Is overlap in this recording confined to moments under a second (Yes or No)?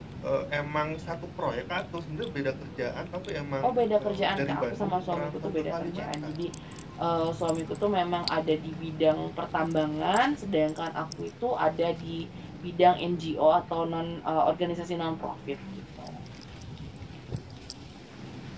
No